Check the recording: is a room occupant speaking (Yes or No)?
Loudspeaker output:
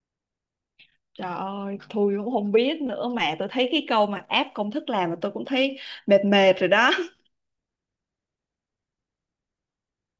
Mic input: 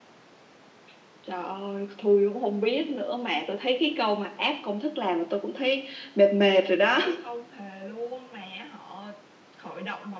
Yes